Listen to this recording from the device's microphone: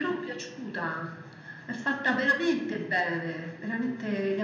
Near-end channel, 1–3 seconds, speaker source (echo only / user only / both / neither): echo only